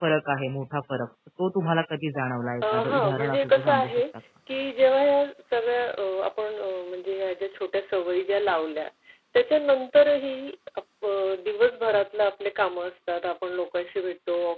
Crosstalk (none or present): present